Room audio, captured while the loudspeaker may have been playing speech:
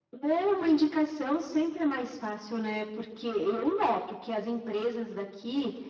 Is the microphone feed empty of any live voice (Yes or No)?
Yes